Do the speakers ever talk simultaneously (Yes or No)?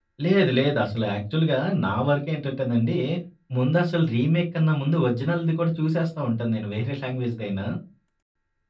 No